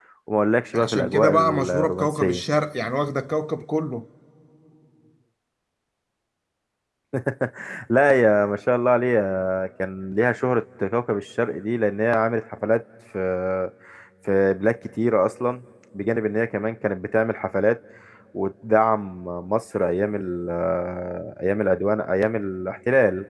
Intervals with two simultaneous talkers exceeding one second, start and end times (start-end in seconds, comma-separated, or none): 0.7-2.4